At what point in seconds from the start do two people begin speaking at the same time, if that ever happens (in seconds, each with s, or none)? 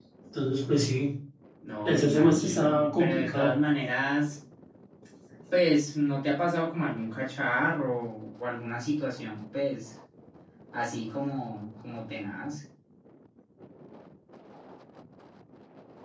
1.9 s